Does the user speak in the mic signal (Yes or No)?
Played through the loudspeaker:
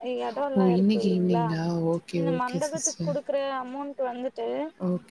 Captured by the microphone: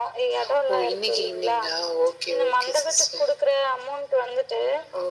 No